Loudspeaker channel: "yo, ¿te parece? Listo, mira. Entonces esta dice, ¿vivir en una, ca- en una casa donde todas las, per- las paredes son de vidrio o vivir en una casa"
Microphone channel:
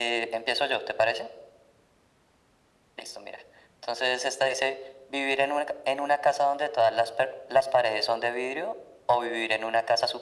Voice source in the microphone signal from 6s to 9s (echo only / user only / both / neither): echo only